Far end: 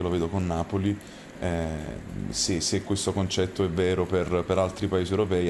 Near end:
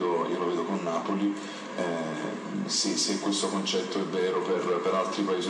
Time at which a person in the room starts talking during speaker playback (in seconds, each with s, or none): none